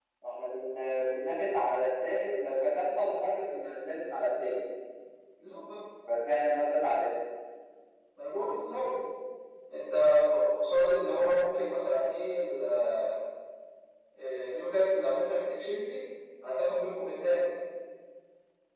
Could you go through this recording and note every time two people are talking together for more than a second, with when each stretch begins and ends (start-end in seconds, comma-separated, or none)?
none